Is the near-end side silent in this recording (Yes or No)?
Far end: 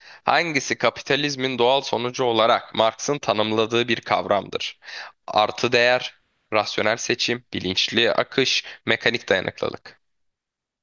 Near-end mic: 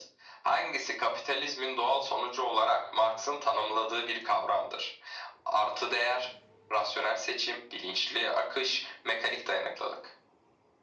Yes